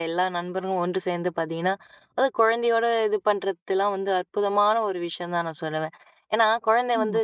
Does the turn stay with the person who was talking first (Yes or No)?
Yes